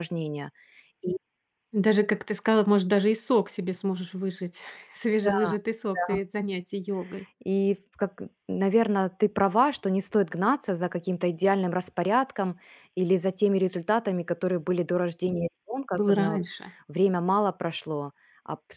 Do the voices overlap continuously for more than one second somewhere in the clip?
No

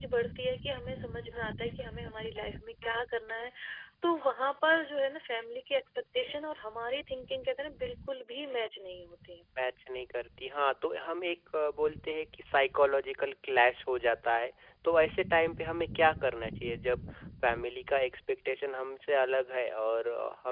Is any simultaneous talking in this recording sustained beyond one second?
No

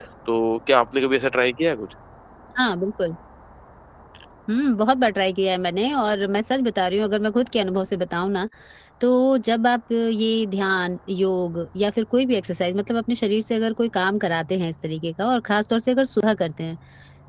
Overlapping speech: No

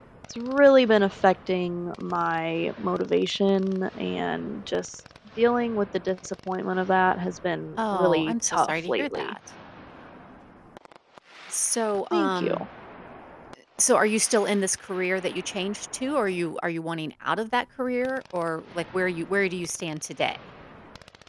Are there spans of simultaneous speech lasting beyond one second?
Yes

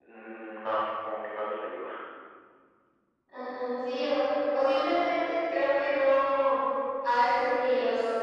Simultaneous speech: No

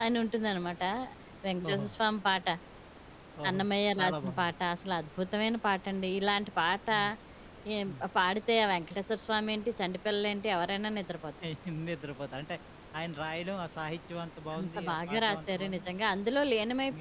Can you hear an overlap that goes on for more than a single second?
Yes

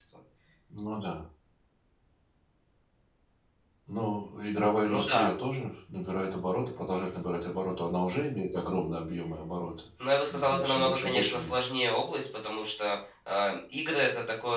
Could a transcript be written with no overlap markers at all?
No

